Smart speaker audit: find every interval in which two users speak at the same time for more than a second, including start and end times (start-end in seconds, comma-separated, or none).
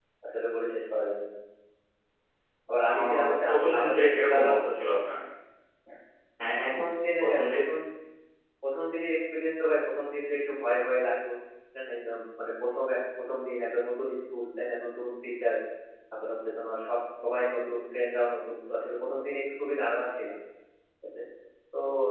2.9-4.5